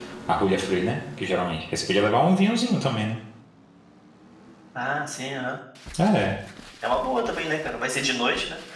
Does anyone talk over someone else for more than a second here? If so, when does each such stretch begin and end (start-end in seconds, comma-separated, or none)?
none